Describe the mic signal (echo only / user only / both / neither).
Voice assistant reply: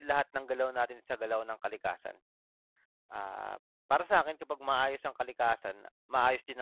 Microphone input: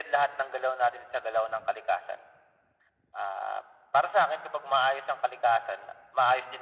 echo only